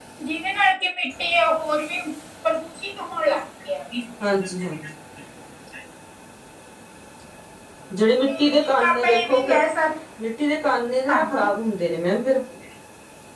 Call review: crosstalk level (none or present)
present